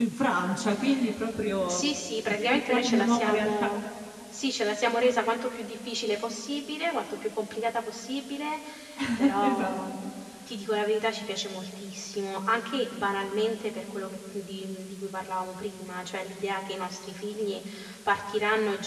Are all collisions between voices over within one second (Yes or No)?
No